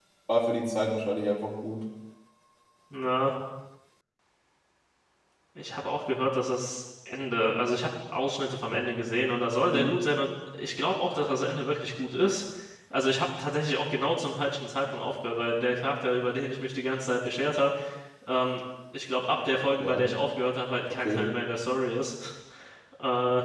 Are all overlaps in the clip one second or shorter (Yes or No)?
Yes